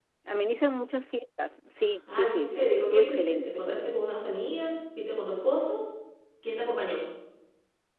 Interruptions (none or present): present